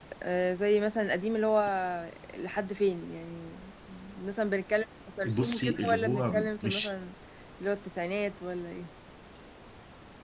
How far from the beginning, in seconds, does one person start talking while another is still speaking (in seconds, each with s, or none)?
5.2 s